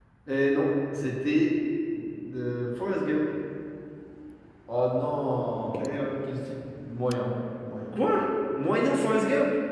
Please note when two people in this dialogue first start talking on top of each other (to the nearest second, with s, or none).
none